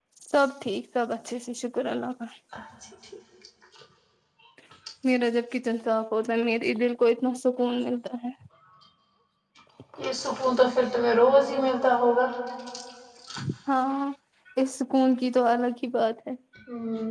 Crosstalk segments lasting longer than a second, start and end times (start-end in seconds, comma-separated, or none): none